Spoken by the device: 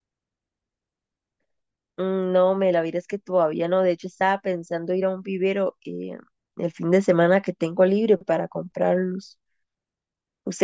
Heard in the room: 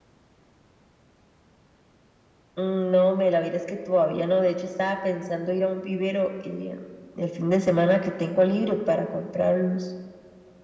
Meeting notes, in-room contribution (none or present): none